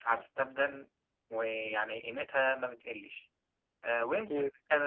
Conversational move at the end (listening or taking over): listening